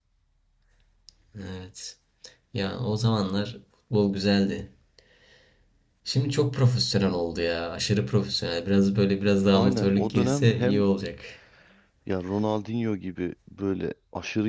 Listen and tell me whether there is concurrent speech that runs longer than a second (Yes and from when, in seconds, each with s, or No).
Yes, from 9.5 s